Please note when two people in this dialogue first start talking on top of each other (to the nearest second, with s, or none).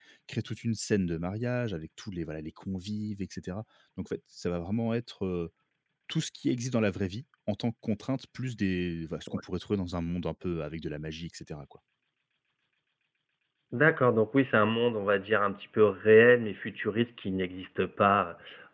none